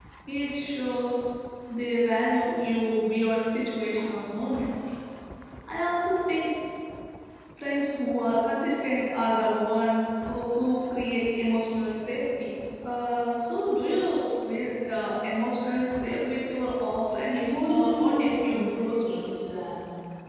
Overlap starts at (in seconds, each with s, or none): 17.3 s